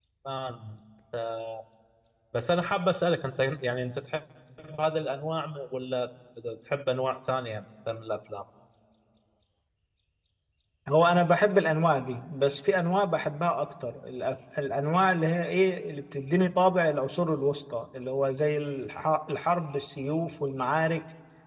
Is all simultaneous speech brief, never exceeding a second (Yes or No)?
Yes